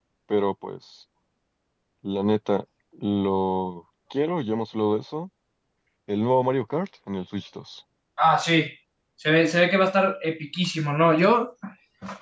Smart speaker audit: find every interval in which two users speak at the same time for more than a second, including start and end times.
none

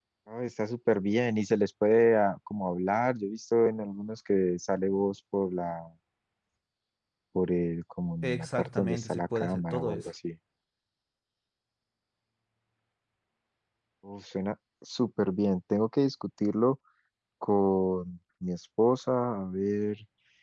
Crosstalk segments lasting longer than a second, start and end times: 8.2-10.1

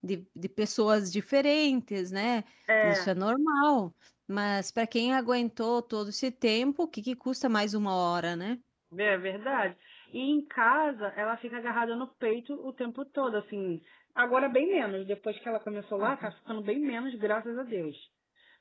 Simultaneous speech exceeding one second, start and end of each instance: none

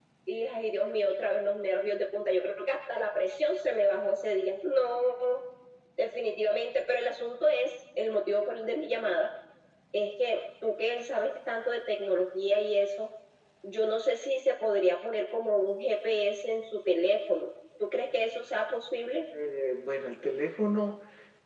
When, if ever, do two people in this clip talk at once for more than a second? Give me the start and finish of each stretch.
none

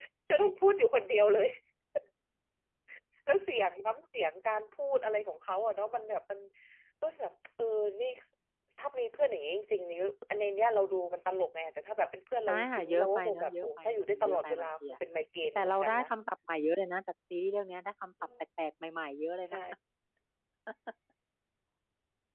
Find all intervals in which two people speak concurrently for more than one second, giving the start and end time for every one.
12.5-14.7

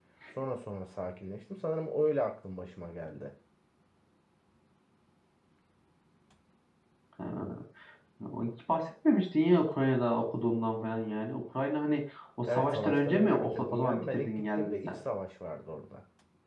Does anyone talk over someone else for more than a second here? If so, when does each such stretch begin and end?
12.5-15.0

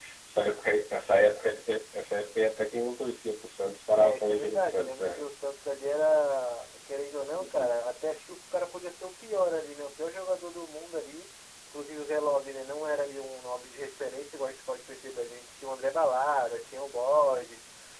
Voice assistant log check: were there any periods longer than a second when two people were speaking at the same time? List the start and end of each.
4.0-5.3

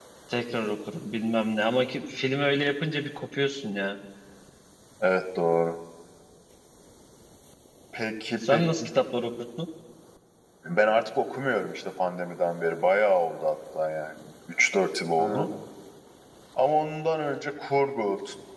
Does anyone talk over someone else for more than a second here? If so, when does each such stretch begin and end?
none

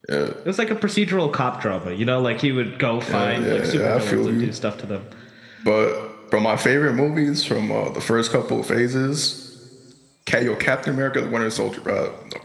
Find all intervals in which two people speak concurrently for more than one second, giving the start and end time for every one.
3.1-4.5

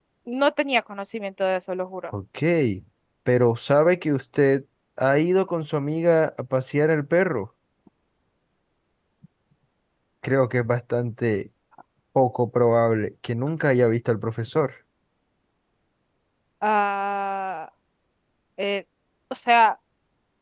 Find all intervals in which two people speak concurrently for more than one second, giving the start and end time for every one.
none

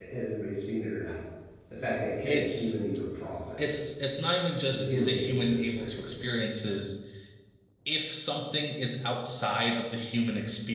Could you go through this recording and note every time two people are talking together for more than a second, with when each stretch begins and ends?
4.7-6.2

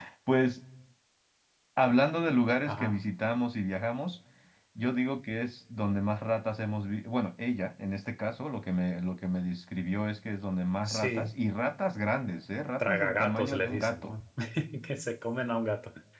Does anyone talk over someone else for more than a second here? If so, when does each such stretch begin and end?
12.8-14.1

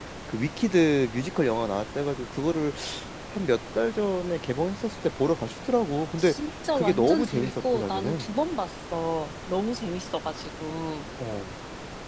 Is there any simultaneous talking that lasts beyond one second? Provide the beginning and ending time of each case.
6.7-8.3

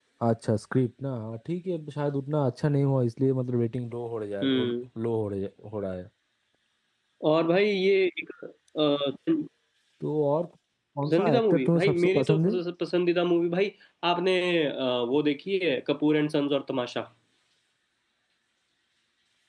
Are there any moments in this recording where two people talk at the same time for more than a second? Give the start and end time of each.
11.0-12.5

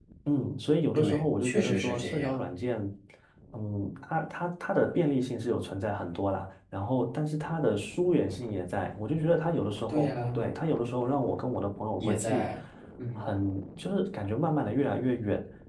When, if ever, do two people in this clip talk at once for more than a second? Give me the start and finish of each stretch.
0.9-2.4

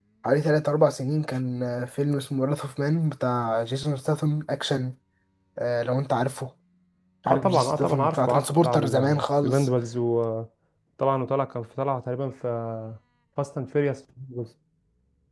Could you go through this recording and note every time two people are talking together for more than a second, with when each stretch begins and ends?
7.3-9.7

